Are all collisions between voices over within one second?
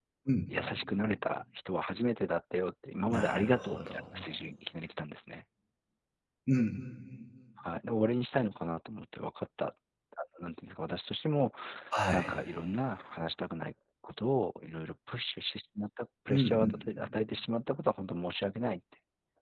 No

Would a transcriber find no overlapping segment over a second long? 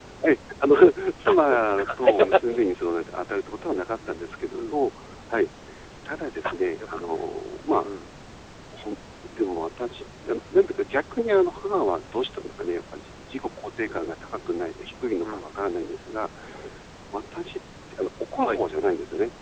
No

